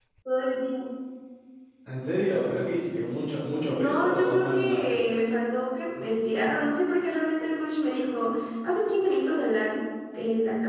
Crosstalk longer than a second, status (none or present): present